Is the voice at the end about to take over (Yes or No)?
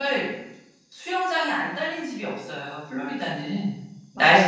Yes